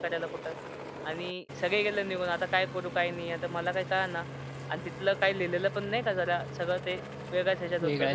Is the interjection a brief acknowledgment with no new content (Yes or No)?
No